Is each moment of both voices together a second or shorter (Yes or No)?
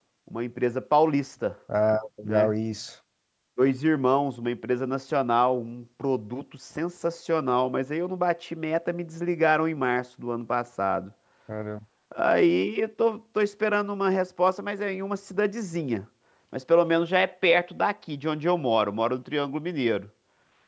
Yes